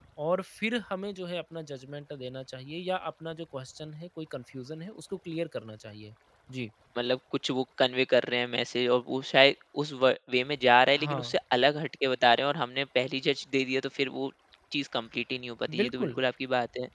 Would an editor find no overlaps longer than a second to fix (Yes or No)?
Yes